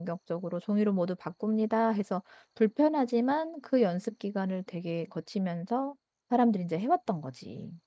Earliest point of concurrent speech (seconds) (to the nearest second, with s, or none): none